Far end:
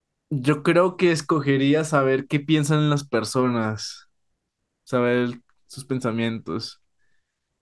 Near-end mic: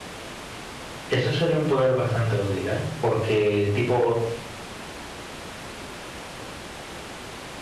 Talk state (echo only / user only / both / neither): user only